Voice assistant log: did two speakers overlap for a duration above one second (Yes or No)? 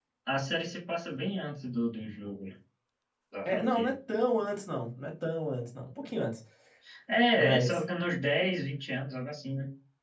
No